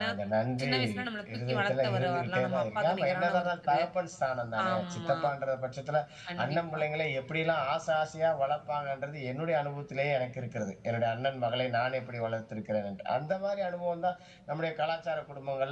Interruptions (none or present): present